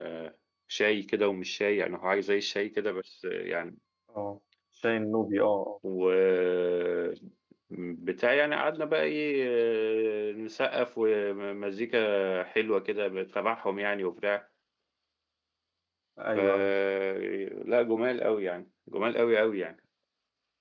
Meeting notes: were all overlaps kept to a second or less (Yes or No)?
Yes